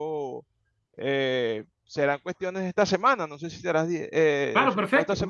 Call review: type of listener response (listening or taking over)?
taking over